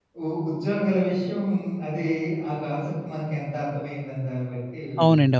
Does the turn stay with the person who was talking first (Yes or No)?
No